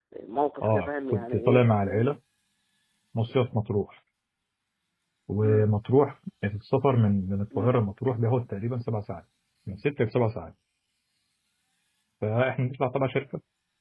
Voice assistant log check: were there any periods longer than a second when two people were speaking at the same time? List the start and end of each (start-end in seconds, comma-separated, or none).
0.6-2.1